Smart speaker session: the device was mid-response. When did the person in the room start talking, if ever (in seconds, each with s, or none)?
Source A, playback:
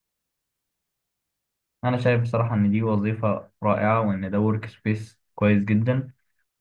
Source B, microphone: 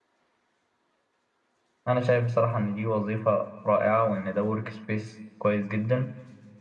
none